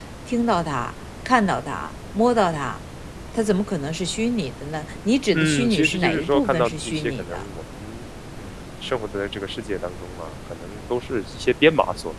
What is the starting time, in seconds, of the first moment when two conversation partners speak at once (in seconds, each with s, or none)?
5.3 s